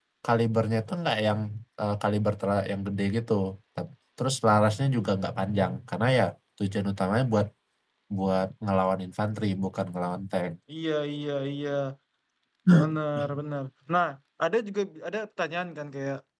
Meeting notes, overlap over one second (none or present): none